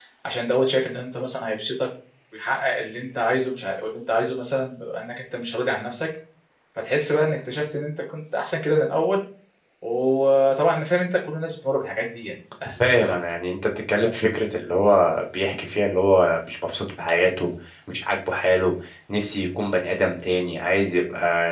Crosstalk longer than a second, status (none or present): none